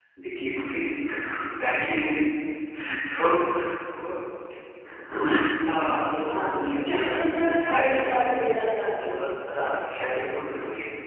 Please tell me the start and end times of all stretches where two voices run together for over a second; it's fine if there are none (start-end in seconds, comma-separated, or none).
6.2-8.2